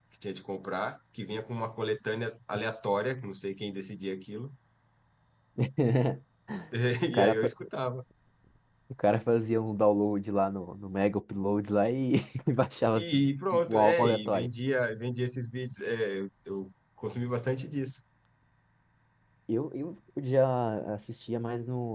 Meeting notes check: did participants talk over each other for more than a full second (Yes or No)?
Yes